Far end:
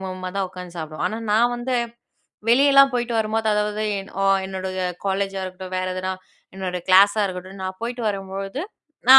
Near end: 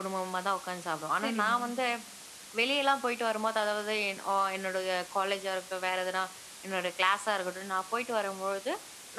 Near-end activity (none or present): present